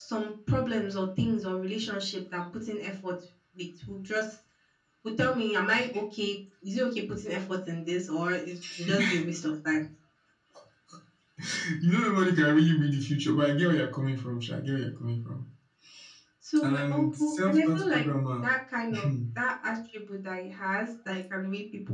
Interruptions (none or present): present